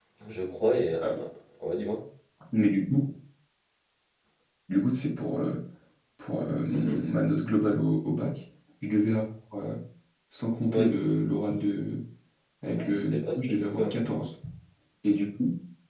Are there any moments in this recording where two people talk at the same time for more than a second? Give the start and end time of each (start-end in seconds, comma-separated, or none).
12.8-14.0